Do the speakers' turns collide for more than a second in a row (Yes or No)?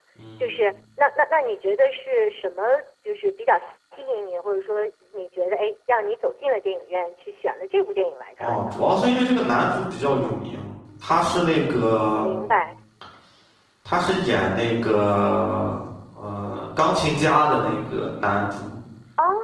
No